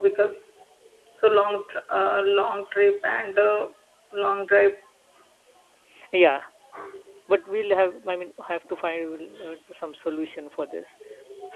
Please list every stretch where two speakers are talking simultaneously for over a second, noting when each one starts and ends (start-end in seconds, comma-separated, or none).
none